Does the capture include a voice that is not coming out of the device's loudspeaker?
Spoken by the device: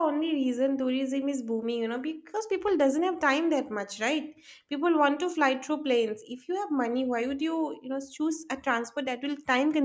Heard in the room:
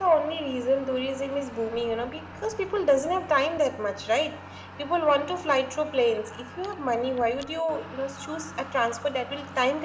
No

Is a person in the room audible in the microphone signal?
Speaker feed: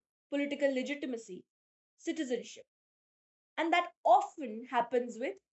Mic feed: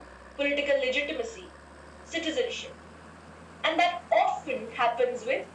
No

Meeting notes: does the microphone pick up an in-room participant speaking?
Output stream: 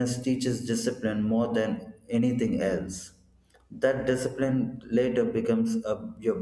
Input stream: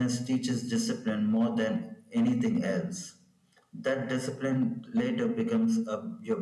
No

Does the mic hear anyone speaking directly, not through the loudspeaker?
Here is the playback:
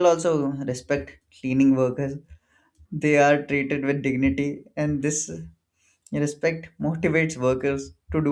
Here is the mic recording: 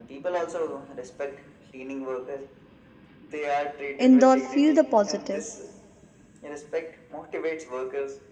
Yes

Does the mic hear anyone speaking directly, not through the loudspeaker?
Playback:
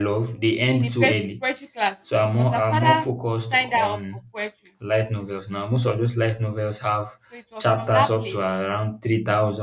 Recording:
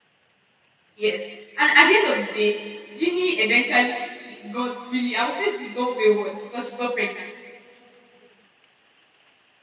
Yes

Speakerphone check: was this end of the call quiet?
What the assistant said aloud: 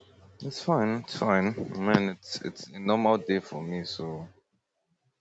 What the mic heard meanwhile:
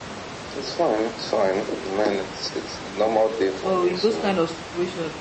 No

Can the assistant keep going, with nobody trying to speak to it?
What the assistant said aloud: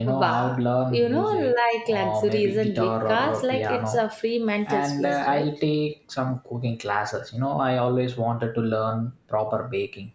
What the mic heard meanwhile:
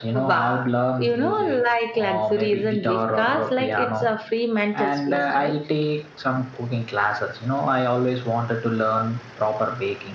Yes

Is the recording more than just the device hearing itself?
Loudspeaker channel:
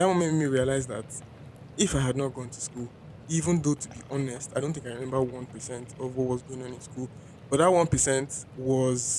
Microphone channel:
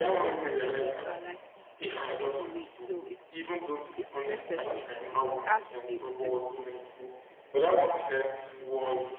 Yes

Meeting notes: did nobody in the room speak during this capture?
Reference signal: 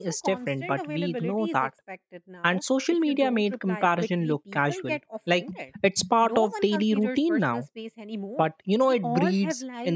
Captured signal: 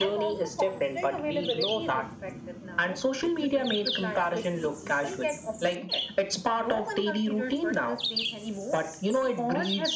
Yes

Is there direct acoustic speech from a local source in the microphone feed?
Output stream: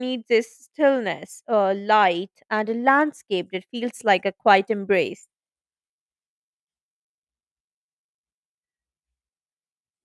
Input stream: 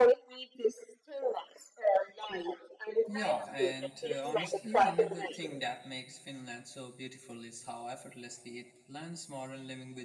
Yes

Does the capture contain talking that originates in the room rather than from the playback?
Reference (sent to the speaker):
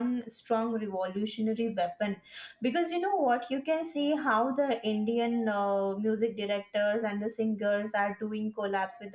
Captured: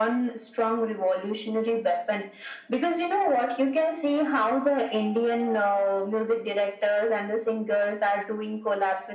No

